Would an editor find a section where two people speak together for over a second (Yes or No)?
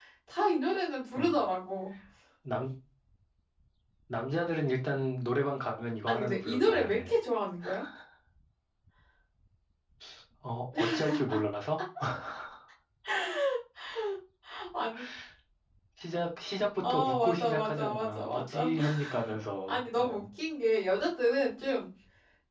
Yes